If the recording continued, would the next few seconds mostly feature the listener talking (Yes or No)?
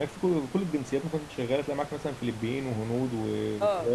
Yes